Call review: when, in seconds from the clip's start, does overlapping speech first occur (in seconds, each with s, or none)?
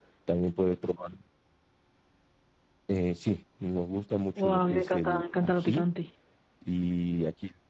4.4 s